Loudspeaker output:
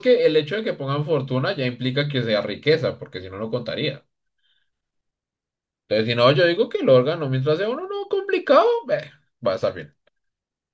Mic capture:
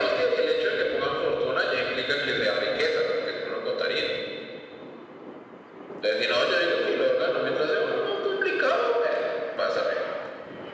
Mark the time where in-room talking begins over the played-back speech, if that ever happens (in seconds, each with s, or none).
none